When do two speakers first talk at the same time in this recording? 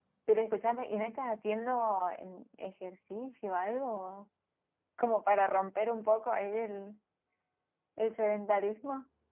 none

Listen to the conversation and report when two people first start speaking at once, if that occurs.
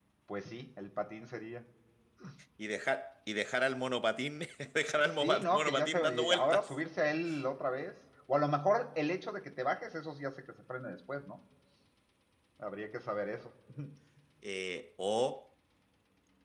5.2 s

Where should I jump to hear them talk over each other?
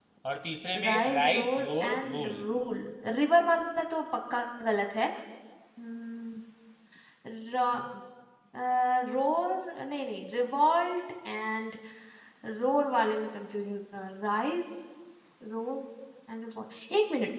0.7 s

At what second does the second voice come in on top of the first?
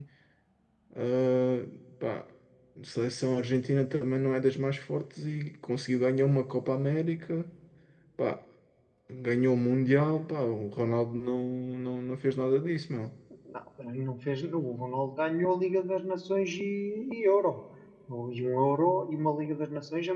none

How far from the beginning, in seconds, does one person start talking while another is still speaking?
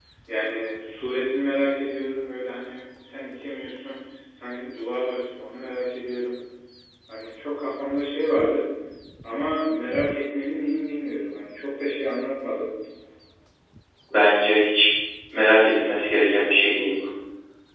none

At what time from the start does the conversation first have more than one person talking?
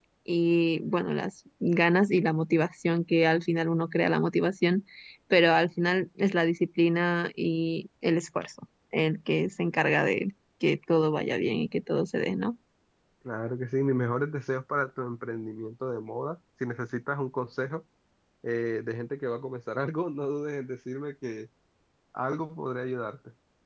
none

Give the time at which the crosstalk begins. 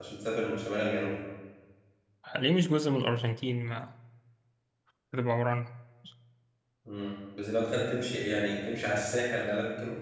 none

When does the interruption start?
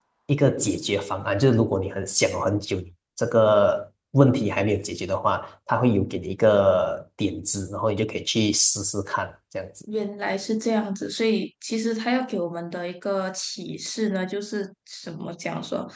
none

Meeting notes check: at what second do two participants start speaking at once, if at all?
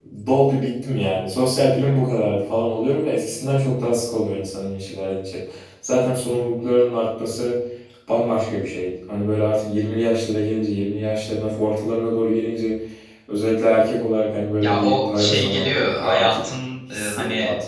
14.6 s

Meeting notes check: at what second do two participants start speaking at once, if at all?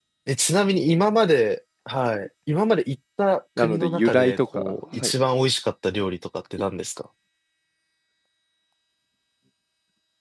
3.6 s

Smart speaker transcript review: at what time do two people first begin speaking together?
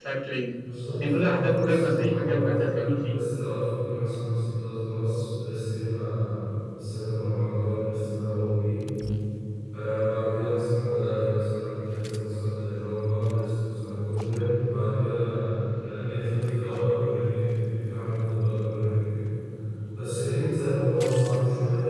1.0 s

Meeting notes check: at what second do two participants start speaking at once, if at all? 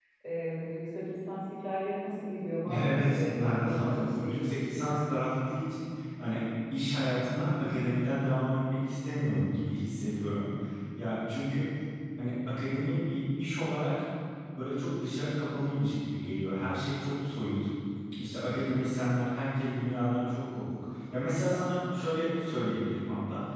2.6 s

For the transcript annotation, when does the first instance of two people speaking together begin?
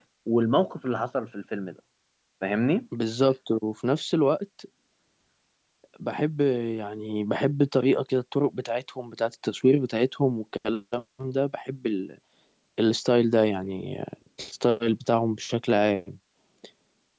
none

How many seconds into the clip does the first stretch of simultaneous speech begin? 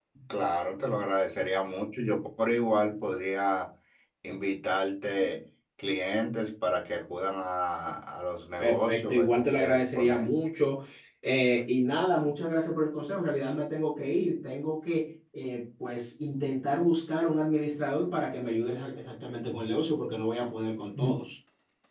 8.6 s

